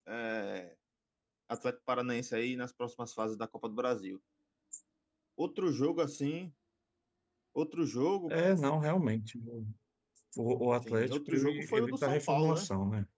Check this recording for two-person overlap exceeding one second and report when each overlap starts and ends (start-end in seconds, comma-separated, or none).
10.8-12.7